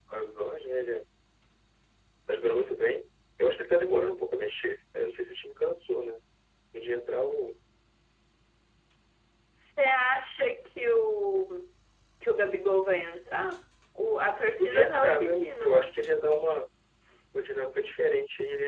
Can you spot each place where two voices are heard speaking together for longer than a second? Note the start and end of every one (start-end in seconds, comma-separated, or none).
14.6-15.9